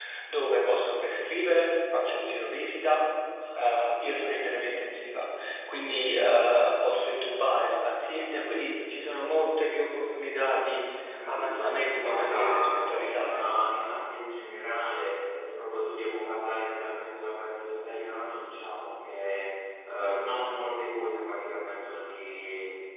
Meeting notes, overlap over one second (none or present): present